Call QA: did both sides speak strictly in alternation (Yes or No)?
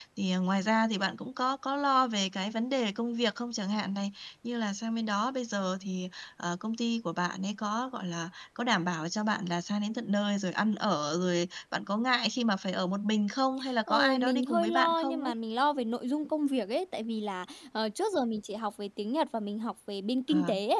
No